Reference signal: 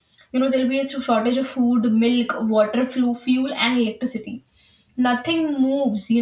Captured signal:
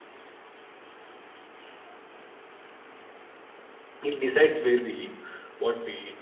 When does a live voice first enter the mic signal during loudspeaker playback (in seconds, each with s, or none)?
4.0 s